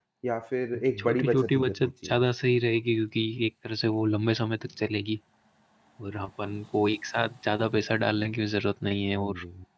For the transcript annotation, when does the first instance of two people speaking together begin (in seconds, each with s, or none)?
1.0 s